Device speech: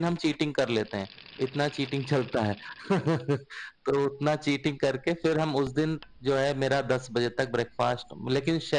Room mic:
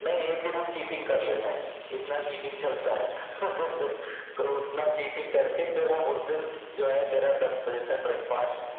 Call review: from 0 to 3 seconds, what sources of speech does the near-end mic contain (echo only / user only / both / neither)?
echo only